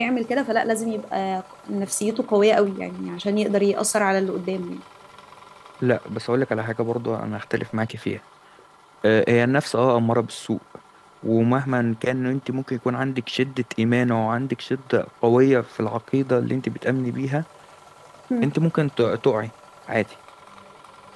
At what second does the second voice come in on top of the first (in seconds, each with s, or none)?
none